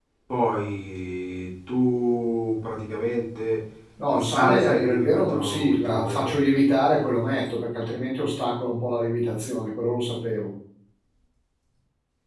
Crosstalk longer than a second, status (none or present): present